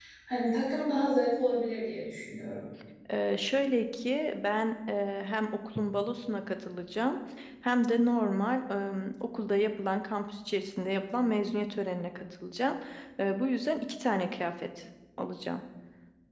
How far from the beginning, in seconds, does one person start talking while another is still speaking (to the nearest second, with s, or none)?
none